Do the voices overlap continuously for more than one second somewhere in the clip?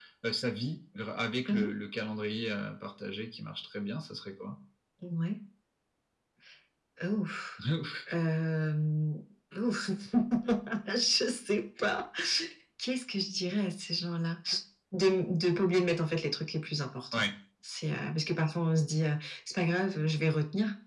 No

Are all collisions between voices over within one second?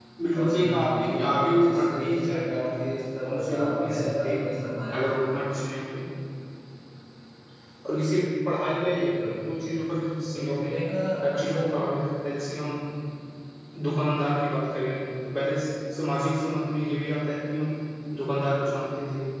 No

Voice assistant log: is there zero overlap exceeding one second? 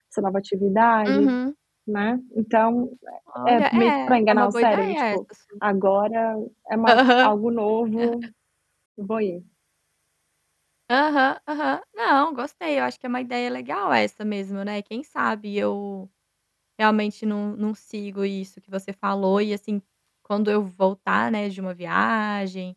No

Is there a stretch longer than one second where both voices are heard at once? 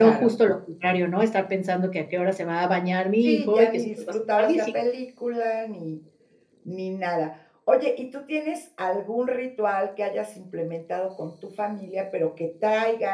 Yes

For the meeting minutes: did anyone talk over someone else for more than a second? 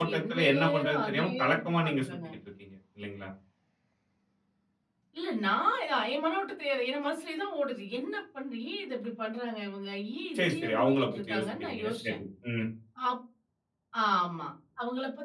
Yes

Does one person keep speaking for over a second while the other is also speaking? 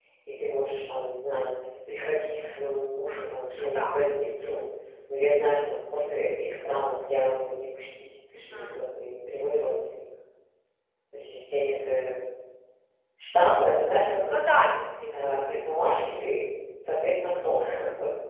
No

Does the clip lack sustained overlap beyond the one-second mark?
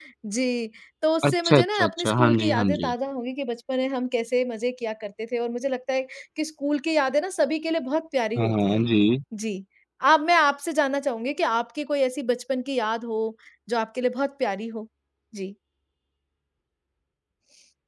No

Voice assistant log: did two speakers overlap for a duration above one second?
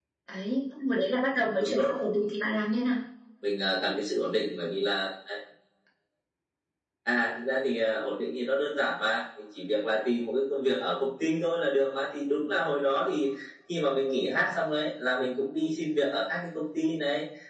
No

